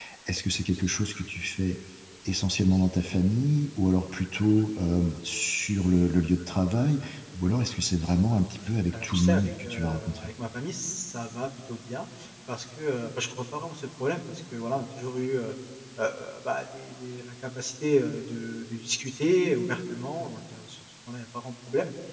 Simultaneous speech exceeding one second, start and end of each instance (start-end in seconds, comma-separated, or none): 8.9-10.3